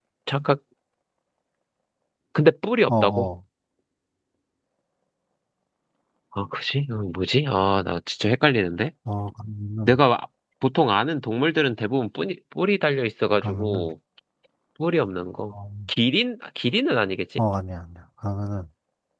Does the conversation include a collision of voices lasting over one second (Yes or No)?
No